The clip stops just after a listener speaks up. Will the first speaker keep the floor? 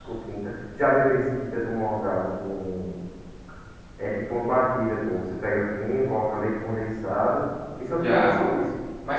No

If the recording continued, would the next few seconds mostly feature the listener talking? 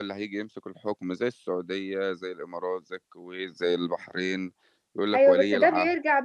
Yes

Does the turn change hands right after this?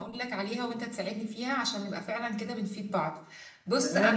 Yes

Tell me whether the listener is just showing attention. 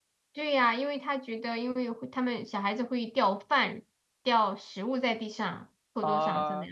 No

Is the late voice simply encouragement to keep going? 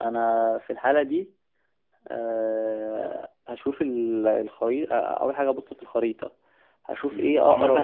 No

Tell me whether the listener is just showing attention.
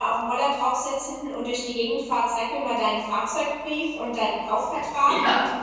Yes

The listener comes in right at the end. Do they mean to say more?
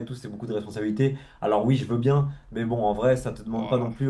No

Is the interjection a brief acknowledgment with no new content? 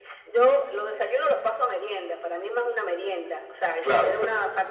Yes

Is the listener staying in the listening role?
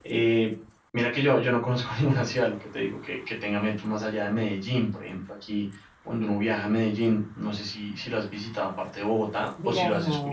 No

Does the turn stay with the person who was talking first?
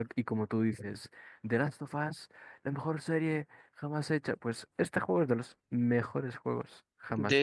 No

